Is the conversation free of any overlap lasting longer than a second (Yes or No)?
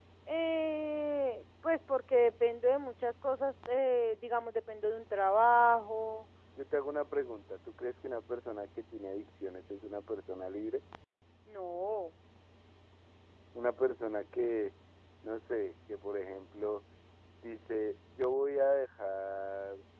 Yes